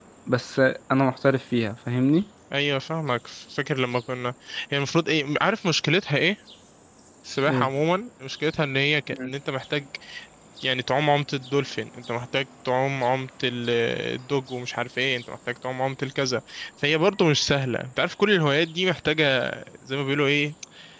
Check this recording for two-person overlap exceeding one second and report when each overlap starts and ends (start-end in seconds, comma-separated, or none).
none